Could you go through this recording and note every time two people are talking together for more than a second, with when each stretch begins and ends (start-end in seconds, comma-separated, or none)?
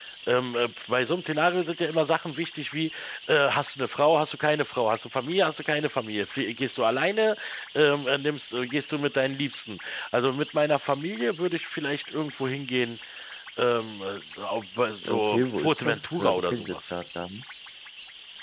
15.1-16.8